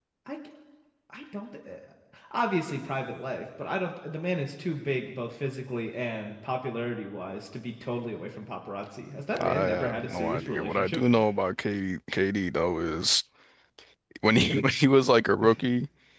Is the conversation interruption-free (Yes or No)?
No